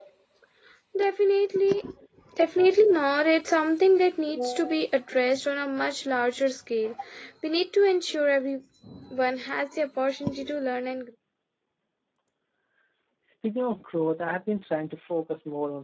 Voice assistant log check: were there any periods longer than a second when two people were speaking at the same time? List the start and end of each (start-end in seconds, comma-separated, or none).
none